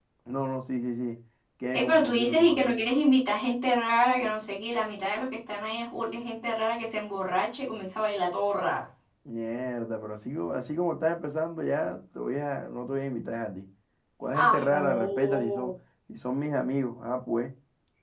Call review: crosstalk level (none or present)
present